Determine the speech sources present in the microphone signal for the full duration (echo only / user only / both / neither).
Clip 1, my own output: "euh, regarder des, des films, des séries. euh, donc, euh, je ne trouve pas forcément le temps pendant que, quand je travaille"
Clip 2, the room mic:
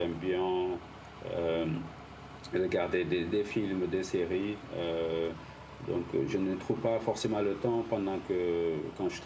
echo only